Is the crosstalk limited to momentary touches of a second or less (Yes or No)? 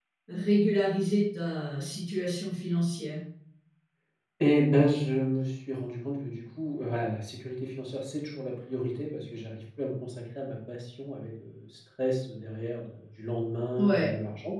Yes